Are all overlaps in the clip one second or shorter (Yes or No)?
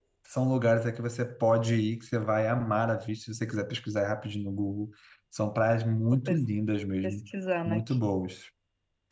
Yes